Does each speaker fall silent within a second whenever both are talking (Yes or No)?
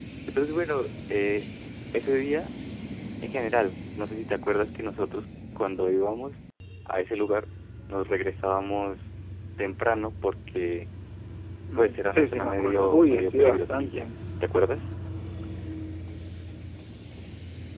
No